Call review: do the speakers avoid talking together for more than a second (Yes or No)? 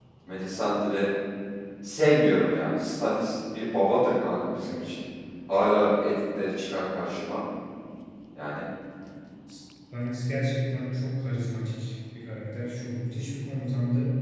Yes